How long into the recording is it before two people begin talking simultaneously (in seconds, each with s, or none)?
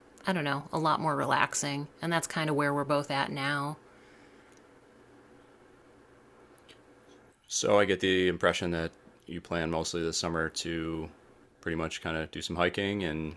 none